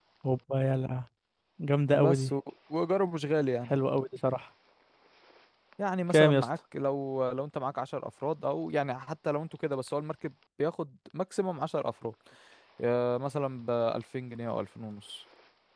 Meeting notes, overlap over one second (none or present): none